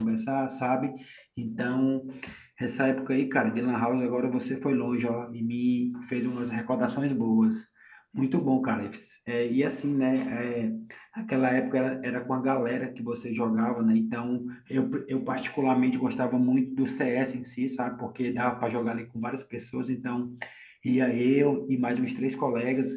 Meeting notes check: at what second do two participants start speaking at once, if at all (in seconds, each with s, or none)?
none